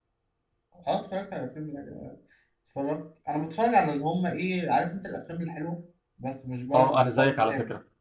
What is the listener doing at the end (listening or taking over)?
taking over